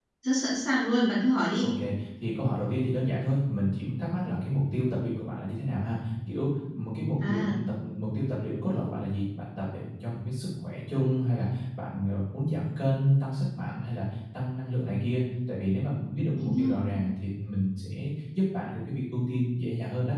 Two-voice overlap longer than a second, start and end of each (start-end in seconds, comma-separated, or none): none